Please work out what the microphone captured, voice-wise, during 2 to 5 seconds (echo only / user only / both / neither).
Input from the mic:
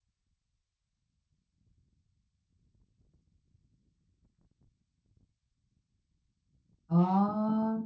neither